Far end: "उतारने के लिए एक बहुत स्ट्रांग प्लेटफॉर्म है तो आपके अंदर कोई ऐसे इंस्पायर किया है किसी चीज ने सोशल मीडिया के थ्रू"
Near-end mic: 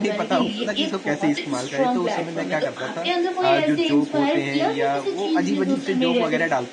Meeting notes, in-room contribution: present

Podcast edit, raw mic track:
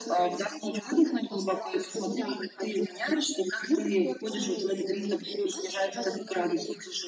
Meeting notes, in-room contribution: none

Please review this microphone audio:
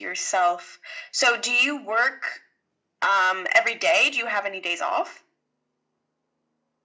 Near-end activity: none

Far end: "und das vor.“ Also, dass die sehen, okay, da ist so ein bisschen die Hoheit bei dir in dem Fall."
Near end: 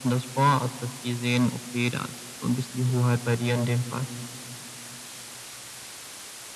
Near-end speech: none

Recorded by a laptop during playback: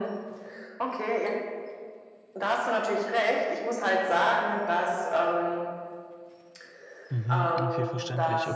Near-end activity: present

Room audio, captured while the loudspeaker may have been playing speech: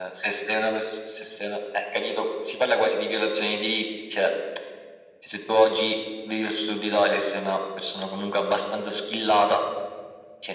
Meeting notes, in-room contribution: none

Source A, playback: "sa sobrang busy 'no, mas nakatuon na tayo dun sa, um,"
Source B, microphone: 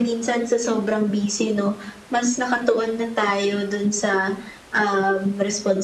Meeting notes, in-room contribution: none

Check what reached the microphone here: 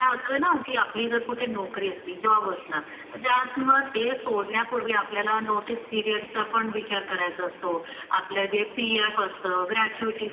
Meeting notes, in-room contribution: none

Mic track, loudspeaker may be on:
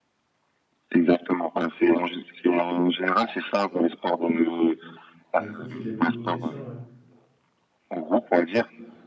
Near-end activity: present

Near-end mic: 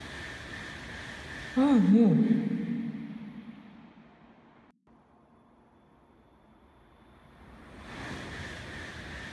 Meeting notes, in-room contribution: present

